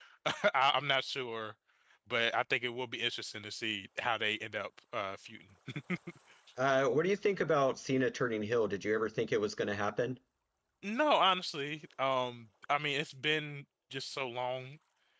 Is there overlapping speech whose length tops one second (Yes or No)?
No